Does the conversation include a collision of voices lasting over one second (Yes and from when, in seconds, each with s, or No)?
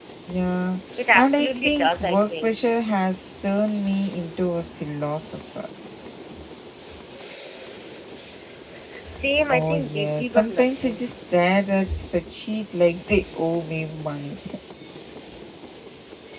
Yes, from 1.1 s